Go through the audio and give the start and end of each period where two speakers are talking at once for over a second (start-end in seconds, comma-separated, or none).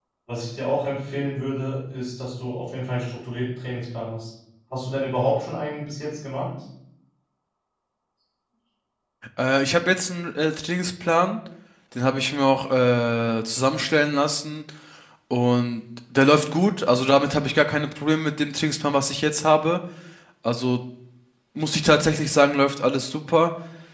none